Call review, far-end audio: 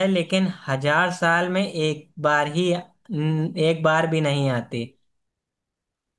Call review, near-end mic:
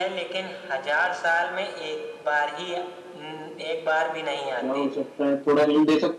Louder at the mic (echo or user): user